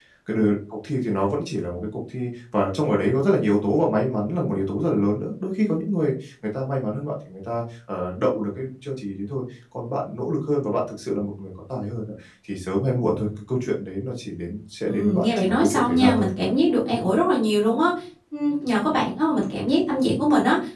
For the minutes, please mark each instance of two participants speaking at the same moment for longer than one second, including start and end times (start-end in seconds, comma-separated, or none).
14.8-16.3